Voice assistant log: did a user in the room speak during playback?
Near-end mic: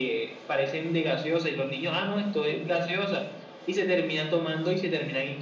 No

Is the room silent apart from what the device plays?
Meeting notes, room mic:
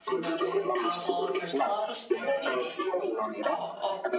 No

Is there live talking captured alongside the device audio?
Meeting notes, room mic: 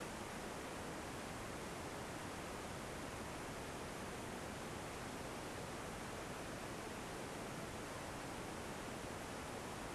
No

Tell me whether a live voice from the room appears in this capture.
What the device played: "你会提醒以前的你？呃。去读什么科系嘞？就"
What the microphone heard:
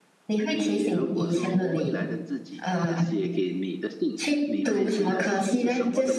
Yes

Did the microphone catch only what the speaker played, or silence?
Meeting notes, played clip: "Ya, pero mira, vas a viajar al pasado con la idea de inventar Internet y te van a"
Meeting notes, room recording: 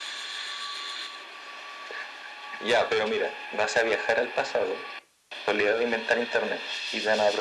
Yes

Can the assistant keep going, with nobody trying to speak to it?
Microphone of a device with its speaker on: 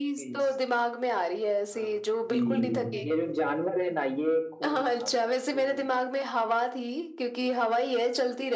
No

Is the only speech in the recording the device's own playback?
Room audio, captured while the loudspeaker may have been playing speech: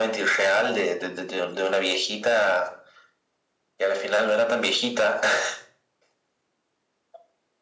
Yes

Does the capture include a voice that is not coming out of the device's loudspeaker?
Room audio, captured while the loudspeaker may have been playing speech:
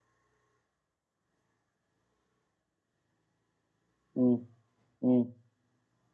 Yes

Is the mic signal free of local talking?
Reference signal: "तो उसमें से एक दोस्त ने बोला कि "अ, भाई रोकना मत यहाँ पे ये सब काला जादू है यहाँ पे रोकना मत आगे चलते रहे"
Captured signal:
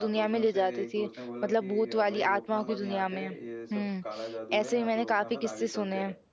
No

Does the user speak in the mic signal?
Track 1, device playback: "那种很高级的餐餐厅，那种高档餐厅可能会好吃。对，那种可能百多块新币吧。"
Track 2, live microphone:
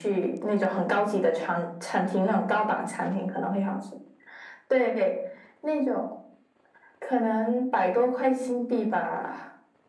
No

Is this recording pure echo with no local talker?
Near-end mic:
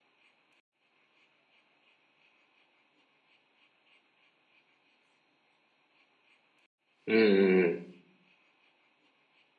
No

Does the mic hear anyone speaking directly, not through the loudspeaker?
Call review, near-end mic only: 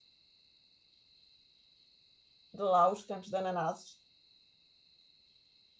Yes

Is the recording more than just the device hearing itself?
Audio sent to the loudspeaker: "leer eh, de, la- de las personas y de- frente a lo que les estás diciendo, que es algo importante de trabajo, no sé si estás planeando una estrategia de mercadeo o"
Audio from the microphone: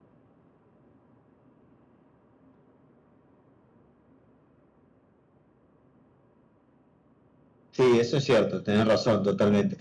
Yes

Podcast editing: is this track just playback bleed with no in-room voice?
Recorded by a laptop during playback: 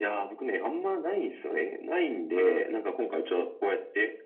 Yes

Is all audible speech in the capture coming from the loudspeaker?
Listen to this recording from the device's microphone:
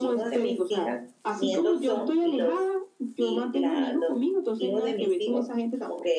No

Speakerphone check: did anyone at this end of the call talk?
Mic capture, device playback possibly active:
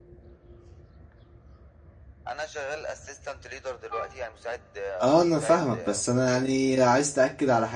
Yes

